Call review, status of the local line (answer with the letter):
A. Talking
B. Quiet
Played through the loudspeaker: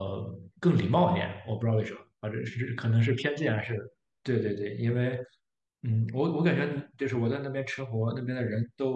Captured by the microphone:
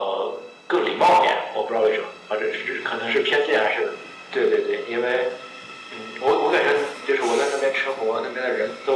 B